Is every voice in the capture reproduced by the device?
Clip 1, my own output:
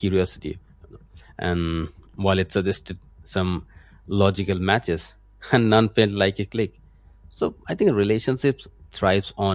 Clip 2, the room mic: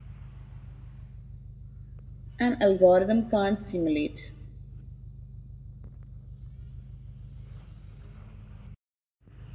No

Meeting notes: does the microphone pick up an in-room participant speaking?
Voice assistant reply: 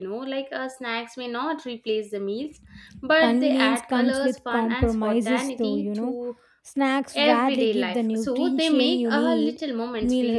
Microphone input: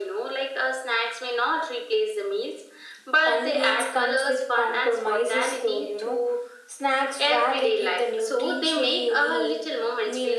No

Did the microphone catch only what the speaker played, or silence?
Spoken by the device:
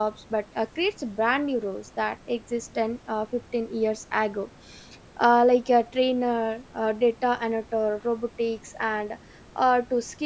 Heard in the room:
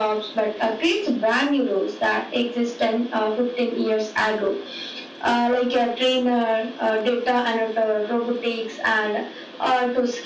Yes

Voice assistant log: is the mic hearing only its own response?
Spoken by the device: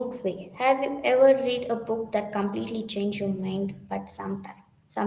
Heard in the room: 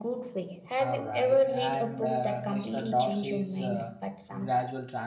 No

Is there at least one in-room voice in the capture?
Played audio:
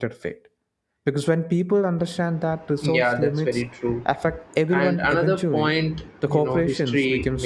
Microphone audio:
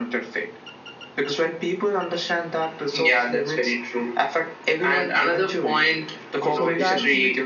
Yes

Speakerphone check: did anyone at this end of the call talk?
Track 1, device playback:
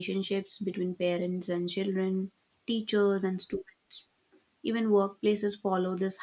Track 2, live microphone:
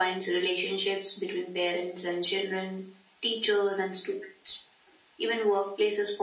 No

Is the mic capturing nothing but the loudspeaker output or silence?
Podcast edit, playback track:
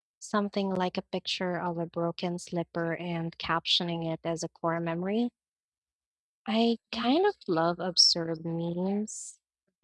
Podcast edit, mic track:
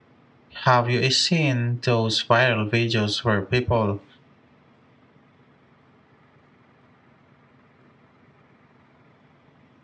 No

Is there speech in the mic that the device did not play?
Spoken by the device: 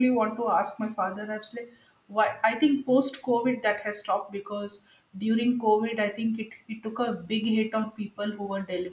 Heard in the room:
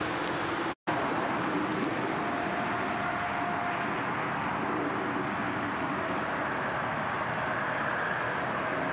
No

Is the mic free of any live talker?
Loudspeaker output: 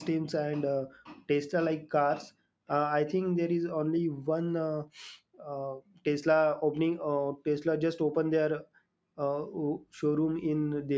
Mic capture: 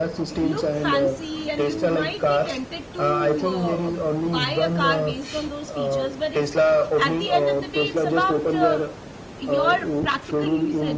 No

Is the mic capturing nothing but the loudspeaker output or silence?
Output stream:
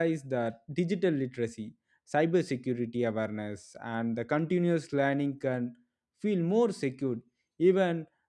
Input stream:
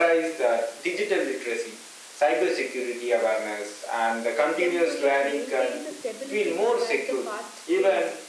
No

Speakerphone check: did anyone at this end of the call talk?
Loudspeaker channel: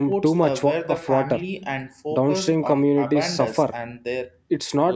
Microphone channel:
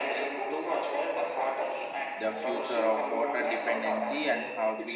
Yes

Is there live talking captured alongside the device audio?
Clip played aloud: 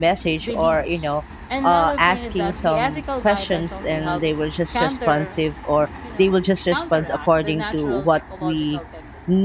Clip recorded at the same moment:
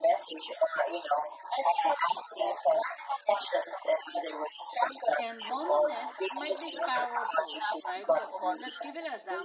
Yes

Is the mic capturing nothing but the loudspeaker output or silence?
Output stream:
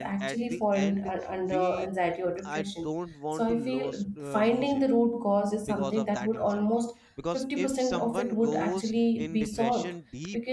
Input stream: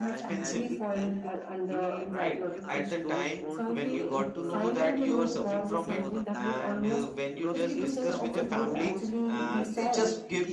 No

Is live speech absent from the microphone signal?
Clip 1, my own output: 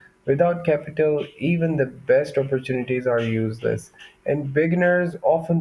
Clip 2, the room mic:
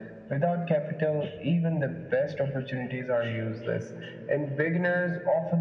Yes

